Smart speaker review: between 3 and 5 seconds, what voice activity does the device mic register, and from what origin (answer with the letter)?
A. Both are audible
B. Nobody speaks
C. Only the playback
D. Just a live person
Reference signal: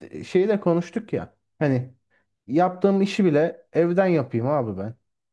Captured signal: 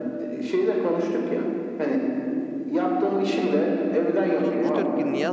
A